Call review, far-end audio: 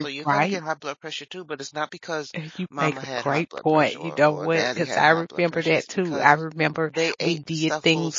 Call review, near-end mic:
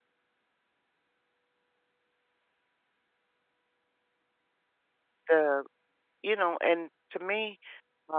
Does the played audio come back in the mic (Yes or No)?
No